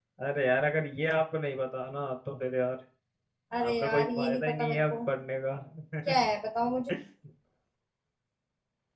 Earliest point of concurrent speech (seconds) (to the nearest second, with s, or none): 4 s